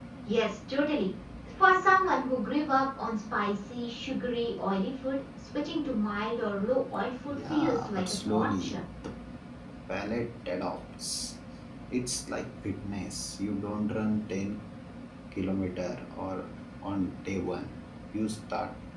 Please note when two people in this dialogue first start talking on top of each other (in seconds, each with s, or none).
7.3 s